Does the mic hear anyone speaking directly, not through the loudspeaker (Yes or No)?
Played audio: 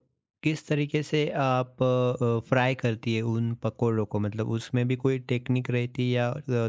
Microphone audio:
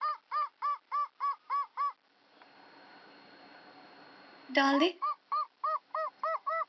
Yes